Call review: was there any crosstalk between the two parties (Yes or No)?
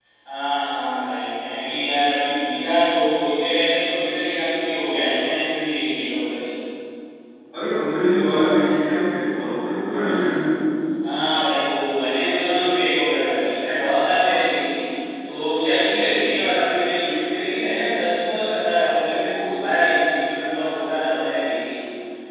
No